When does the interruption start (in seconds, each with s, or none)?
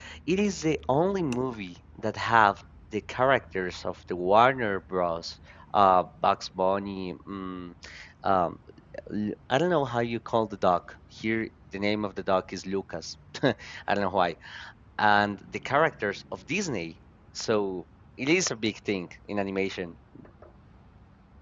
none